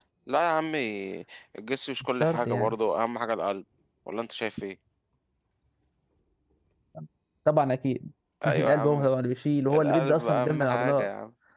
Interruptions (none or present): present